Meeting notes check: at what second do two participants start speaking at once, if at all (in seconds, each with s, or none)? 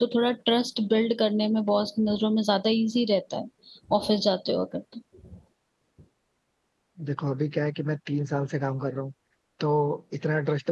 none